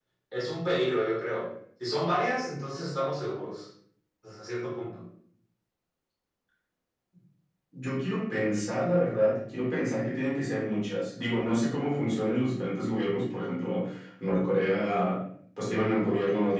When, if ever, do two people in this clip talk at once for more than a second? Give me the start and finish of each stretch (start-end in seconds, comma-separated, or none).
none